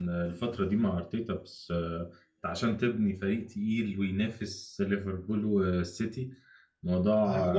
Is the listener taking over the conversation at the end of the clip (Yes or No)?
No